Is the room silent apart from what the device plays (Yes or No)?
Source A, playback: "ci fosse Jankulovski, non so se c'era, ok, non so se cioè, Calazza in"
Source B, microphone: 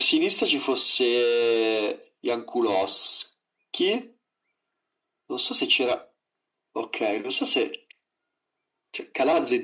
Yes